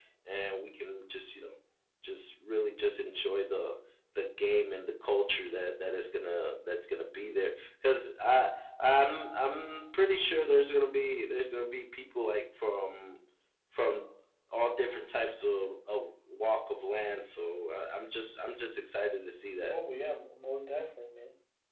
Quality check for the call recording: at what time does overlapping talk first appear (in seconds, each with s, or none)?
none